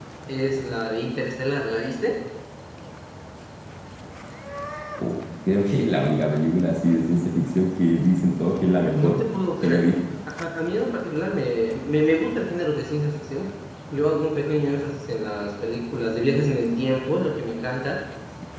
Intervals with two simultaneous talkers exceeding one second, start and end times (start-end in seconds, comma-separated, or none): none